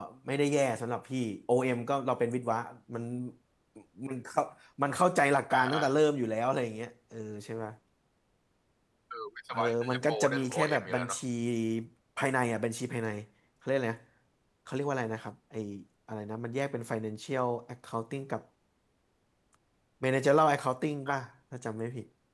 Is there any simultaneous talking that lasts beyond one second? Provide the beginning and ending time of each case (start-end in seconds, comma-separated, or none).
9.5-11.2